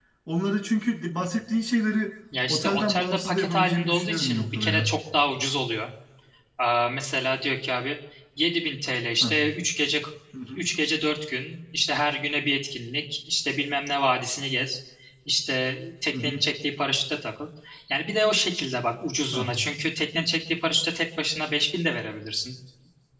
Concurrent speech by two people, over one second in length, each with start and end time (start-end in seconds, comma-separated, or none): 2.5-4.9